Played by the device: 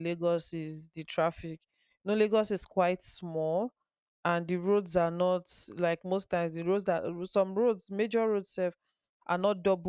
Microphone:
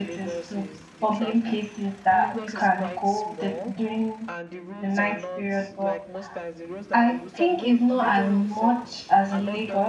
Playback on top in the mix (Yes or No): No